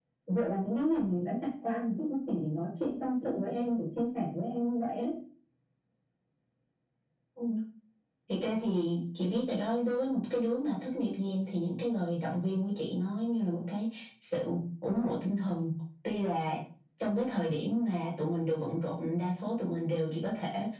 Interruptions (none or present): none